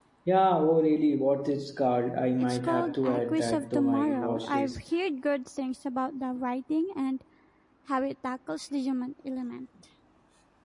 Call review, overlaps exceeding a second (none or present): present